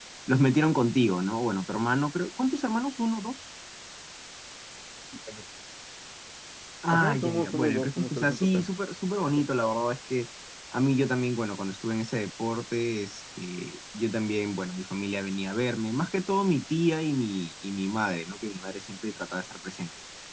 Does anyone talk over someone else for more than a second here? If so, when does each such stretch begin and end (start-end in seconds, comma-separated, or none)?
6.9-8.7